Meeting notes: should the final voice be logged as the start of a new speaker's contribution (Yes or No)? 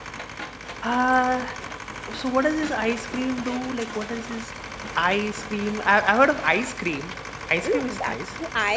Yes